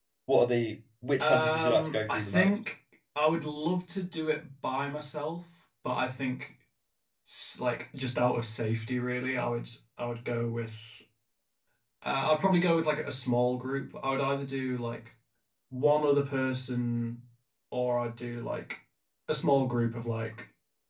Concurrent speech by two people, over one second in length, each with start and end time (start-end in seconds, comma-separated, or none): 1.2-2.5